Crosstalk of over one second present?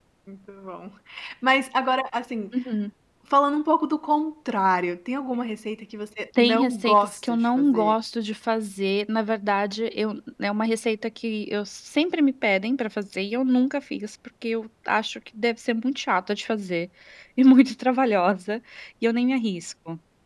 Yes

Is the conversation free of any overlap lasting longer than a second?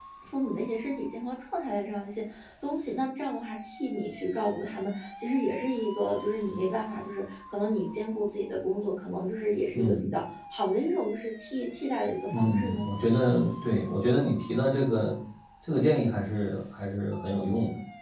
Yes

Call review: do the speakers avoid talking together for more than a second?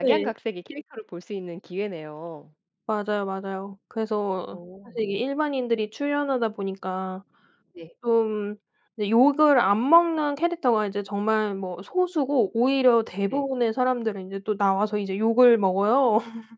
Yes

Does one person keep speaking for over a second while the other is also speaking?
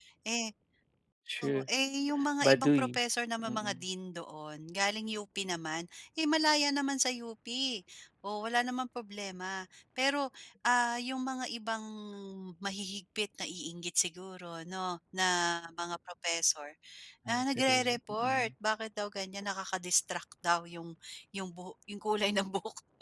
Yes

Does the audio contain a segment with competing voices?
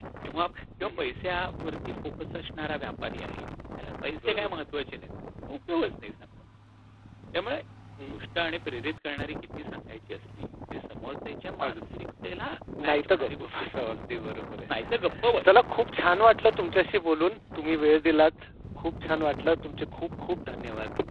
Yes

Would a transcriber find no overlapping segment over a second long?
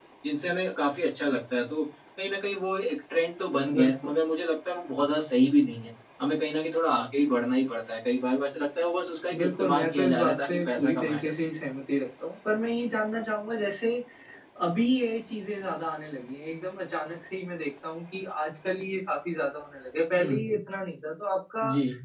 No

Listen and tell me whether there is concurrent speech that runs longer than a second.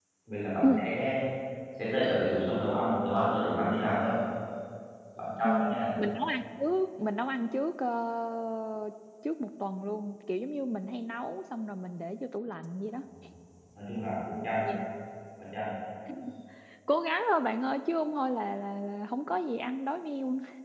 No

